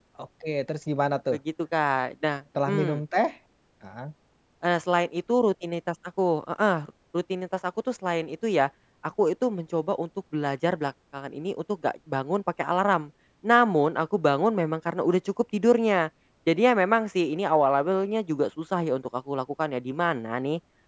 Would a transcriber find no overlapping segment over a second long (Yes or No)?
Yes